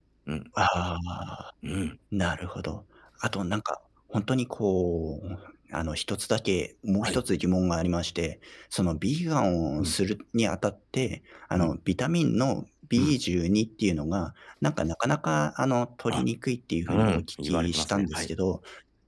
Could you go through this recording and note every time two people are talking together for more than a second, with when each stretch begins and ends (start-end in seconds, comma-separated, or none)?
16.9-18.3